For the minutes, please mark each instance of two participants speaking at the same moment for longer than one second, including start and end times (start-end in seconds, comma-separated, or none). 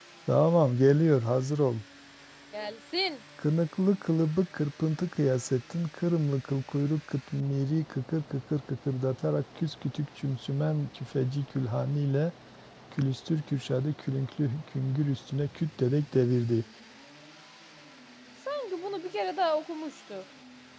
none